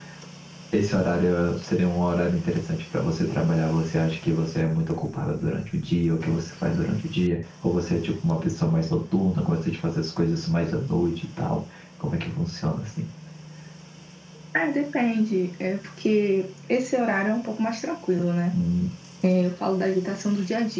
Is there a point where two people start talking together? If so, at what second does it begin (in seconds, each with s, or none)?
none